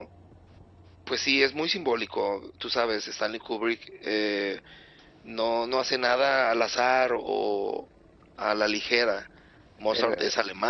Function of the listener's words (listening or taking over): listening